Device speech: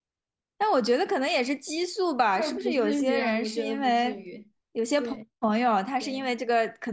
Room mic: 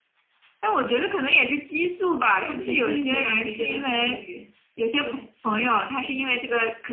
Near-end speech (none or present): none